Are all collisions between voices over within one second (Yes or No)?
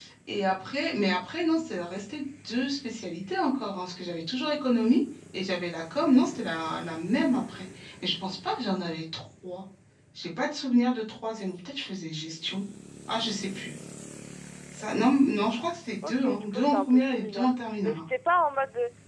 No